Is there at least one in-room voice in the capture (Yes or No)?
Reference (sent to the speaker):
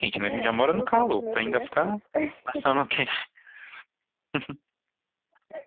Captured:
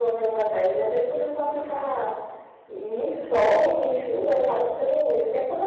Yes